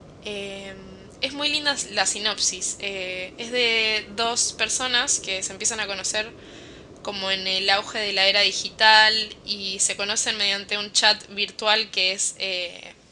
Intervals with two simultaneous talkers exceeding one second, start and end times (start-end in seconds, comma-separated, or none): none